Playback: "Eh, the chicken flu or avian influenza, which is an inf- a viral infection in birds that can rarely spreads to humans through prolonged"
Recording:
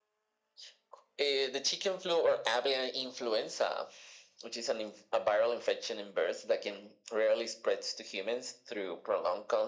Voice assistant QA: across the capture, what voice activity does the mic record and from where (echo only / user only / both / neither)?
echo only